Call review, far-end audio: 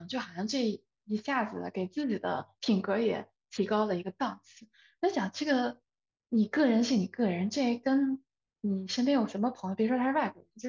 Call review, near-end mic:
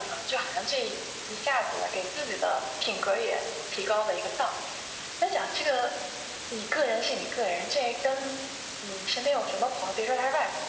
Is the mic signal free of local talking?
Yes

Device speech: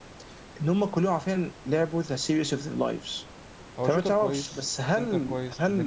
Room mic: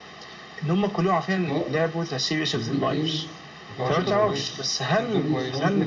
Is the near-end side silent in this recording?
No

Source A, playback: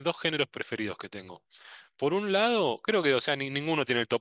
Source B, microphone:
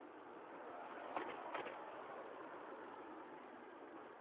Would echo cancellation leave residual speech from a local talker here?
No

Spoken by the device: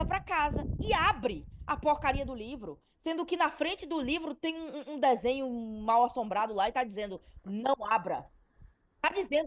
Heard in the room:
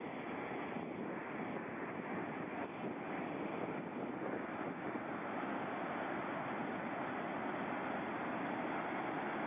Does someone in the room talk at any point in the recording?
No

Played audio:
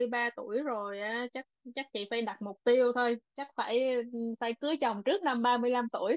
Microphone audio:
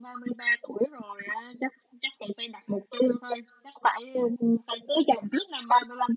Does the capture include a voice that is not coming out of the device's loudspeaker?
No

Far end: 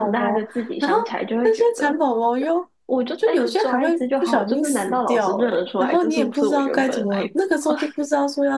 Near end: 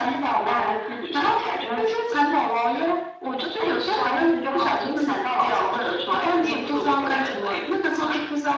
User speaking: No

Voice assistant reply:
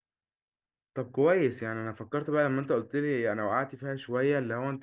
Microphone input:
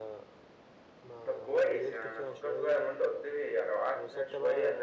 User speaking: Yes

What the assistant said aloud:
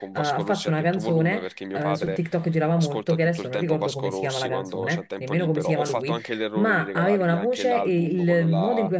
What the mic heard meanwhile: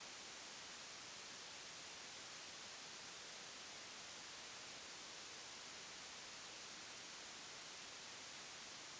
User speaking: No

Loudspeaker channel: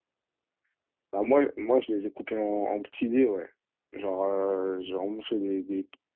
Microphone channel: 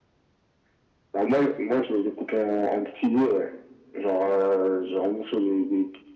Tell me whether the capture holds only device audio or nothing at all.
Yes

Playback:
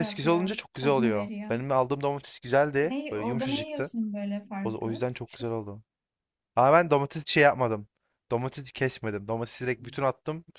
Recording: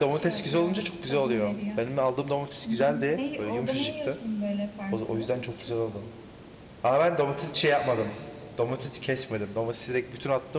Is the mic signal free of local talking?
No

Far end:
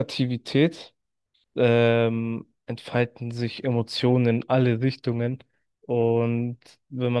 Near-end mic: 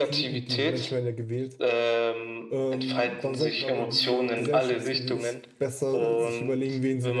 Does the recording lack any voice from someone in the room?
No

